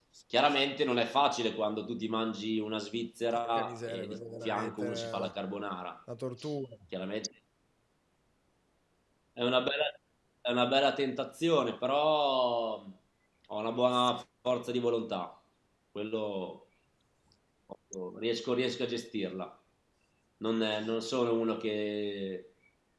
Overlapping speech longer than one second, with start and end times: 3.4-5.2

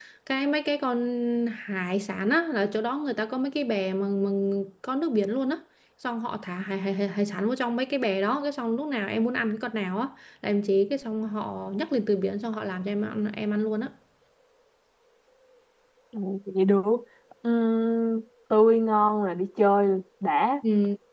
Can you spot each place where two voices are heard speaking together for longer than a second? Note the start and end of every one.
none

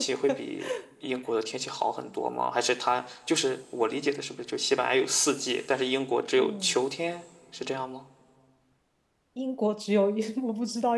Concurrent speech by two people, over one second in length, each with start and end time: none

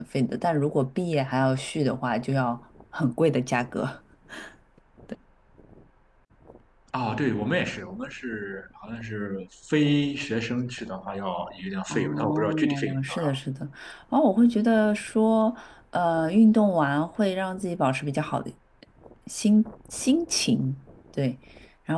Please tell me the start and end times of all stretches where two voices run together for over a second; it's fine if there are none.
11.9-13.1

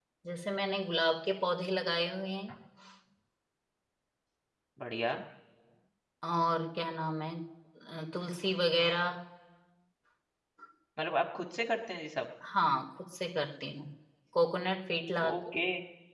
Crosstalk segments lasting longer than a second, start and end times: none

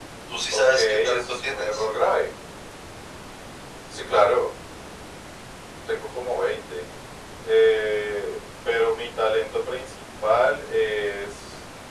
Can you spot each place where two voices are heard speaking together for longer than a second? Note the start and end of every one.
0.5-1.9

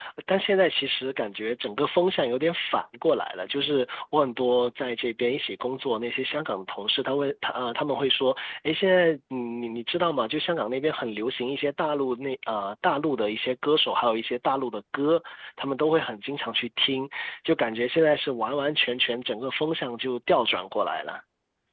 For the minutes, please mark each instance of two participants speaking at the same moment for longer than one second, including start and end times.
none

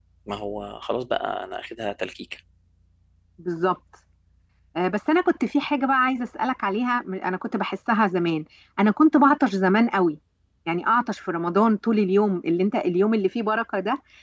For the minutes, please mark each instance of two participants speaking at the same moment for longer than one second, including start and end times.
none

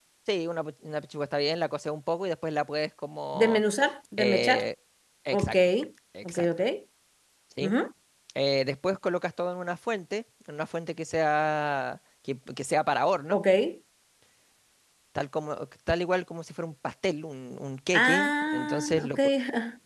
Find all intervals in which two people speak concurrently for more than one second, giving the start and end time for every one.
17.9-19.2

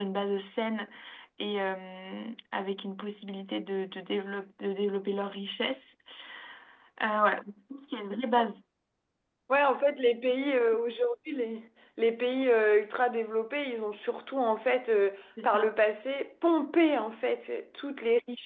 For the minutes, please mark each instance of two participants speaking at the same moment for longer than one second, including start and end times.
none

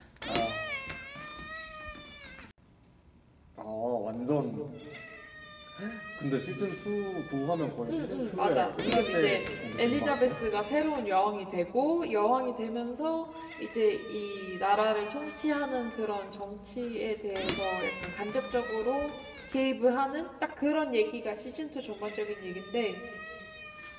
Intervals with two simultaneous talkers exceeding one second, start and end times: 7.9-10.4

